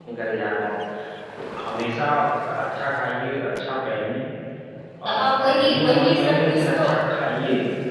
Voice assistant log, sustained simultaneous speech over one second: present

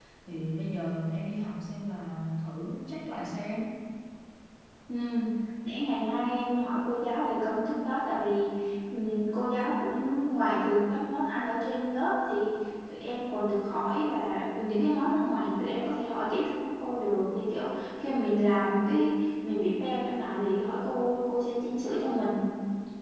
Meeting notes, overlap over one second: none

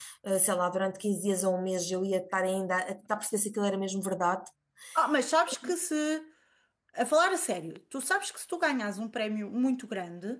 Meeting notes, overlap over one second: none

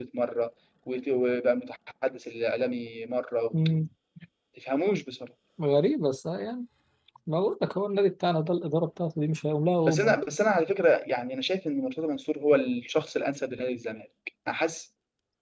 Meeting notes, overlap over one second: none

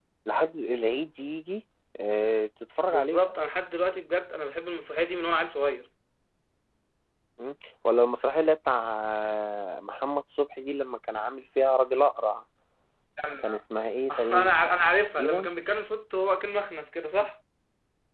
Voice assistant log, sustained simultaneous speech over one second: none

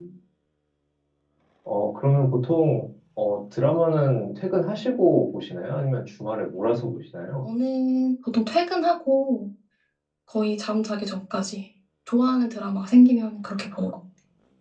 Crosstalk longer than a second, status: none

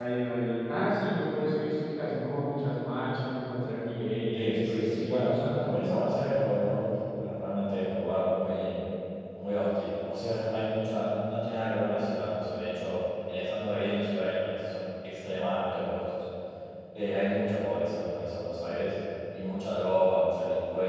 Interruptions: present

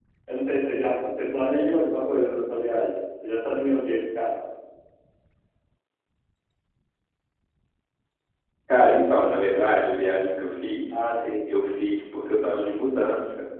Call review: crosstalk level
none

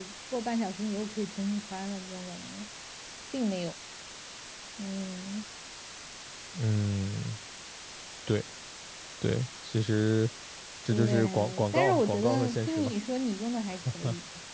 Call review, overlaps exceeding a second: present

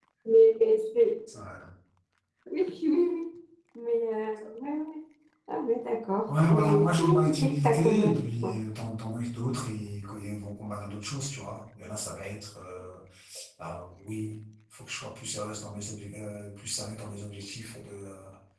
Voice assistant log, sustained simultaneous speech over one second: present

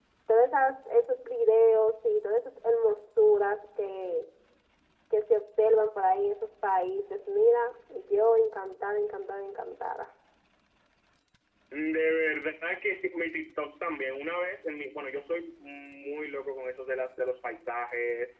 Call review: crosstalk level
none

